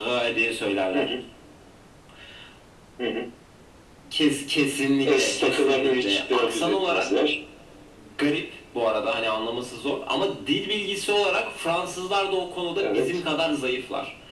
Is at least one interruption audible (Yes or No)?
Yes